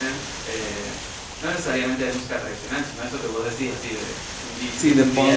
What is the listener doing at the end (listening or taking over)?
taking over